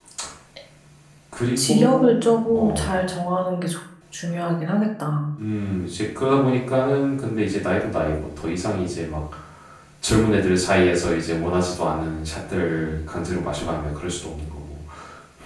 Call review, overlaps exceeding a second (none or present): present